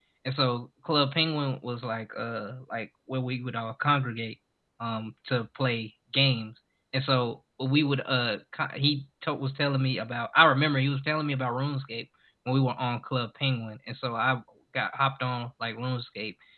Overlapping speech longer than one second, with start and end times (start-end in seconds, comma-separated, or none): none